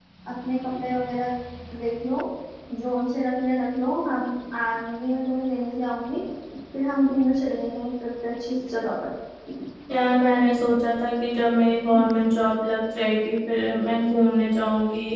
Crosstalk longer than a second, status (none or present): none